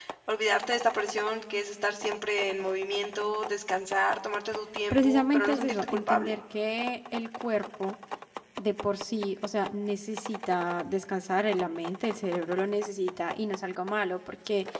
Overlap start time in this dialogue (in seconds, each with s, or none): 4.9 s